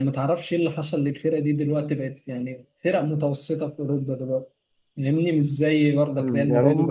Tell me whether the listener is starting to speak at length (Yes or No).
Yes